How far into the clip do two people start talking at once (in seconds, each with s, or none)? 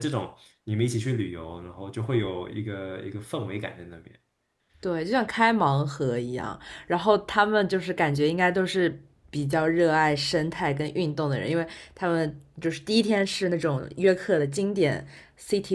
none